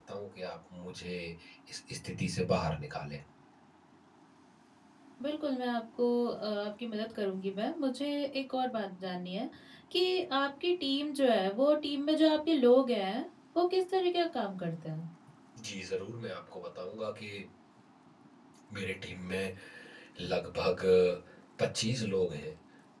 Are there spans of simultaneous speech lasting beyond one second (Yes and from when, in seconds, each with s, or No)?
No